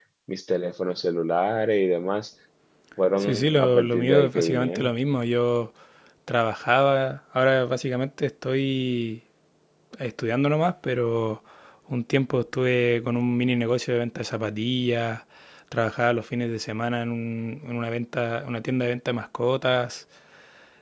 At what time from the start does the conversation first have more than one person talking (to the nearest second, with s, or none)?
3 s